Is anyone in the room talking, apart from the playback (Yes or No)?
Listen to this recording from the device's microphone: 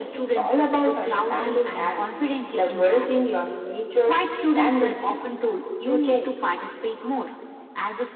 No